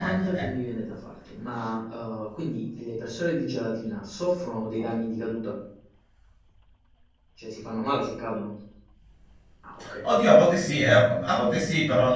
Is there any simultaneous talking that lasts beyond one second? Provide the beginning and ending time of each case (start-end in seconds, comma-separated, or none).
none